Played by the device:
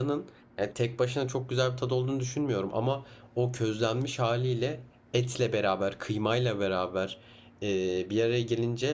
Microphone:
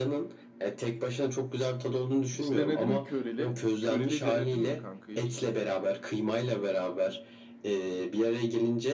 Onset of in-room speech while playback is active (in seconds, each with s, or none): 2.3 s